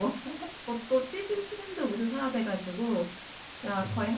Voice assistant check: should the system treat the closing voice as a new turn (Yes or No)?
No